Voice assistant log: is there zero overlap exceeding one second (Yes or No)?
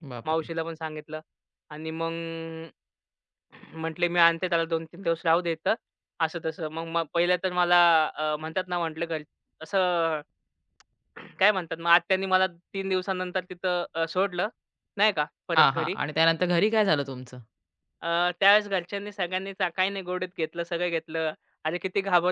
Yes